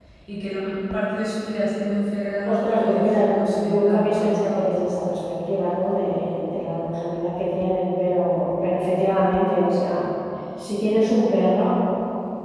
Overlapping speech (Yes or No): Yes